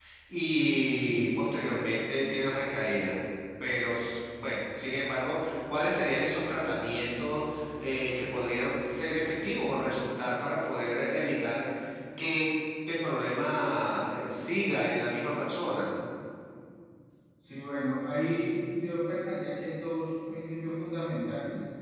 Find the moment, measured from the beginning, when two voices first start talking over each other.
none

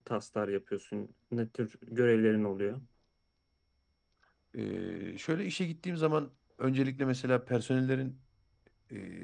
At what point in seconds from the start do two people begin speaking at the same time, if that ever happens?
none

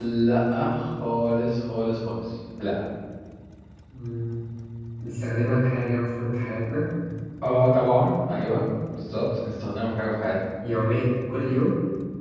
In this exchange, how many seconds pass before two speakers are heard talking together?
none

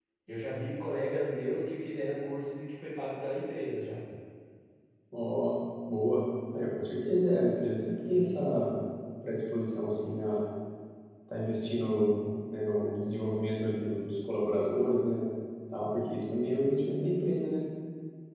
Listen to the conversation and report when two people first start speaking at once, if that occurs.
none

